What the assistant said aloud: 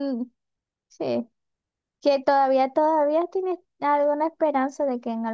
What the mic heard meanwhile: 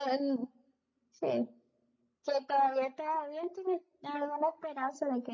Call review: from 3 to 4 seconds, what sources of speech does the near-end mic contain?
echo only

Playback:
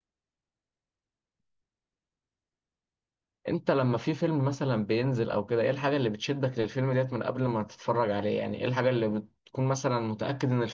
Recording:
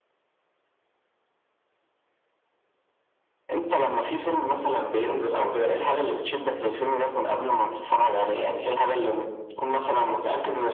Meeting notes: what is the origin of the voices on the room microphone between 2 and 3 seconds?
neither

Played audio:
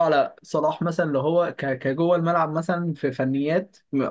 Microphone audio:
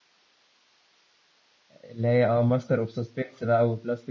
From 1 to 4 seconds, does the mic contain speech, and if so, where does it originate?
user only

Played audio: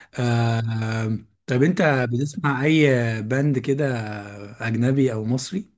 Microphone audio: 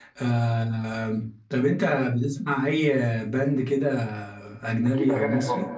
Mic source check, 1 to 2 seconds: echo only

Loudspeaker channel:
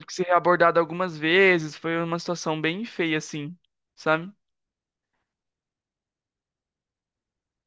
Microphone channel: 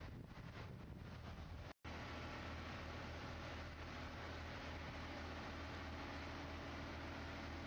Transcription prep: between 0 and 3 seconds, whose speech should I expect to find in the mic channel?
neither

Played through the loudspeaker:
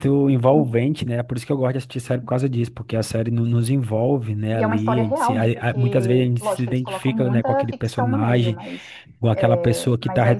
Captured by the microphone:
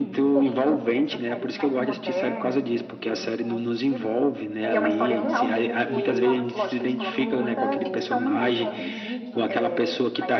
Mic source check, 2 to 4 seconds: both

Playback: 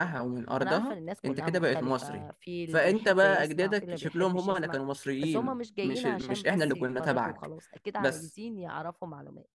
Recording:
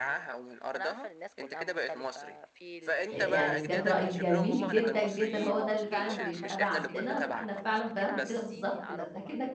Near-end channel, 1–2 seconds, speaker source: echo only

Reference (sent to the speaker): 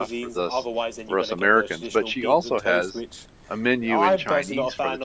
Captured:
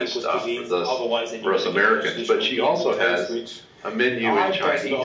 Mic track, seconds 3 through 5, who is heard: echo only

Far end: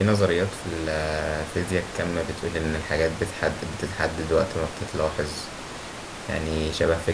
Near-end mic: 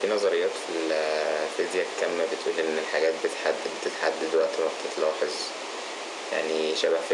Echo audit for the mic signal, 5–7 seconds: echo only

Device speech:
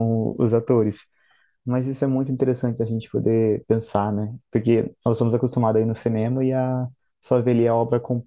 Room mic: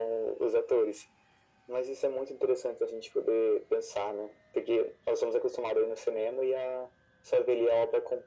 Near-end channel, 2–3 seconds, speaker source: echo only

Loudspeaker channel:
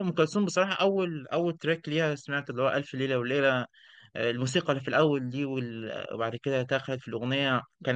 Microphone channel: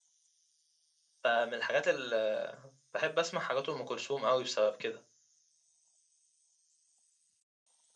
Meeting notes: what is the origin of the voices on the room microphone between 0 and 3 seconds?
user only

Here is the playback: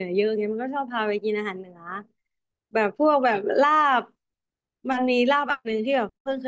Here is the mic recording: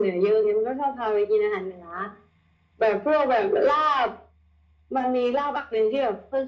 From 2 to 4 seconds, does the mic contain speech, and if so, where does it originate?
echo only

